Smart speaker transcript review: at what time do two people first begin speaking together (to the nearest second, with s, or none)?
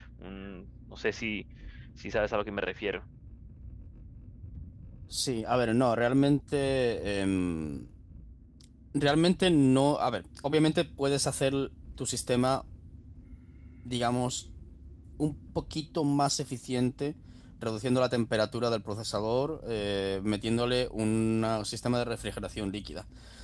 none